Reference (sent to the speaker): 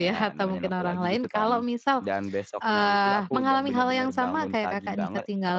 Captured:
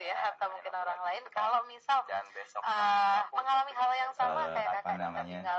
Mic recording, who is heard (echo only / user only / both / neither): both